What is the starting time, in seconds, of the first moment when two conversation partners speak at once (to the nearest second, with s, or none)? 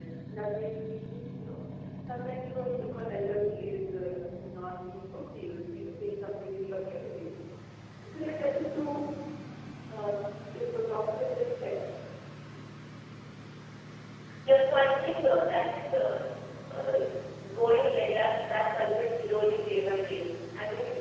none